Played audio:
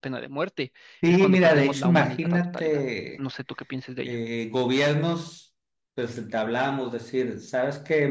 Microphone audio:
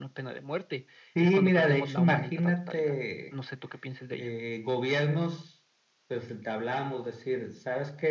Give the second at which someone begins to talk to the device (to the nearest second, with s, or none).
none